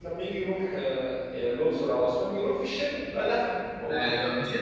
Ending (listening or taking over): taking over